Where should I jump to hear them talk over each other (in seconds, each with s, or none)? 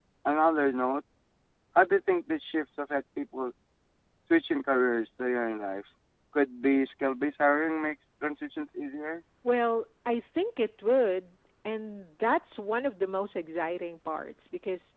none